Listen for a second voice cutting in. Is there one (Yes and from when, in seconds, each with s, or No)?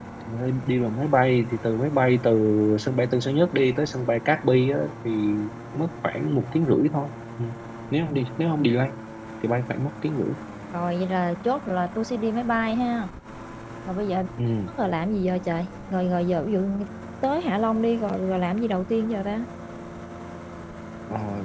No